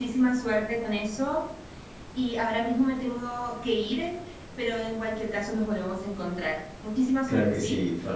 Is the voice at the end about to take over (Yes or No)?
Yes